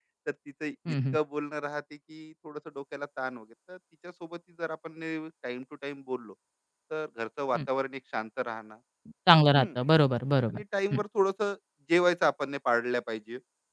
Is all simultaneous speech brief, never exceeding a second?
Yes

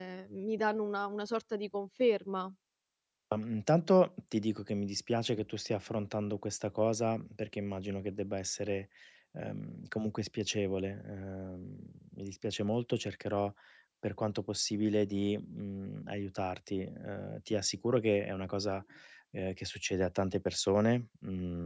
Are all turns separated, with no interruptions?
Yes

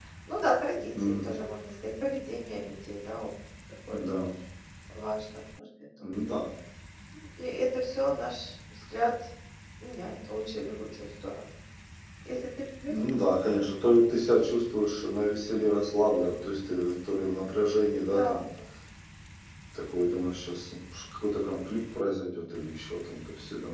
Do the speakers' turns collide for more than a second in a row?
No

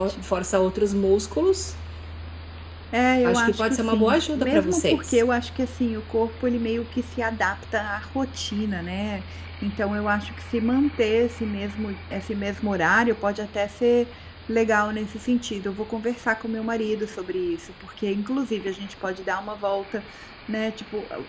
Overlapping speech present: Yes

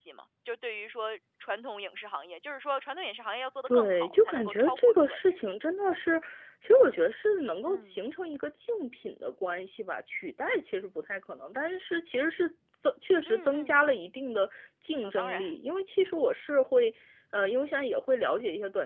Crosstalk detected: Yes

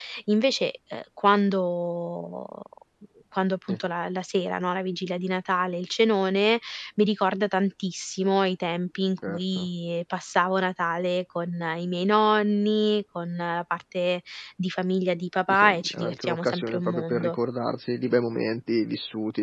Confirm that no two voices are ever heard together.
No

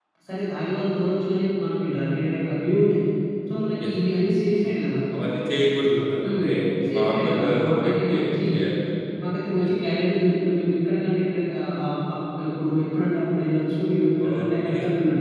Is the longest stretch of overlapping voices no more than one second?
No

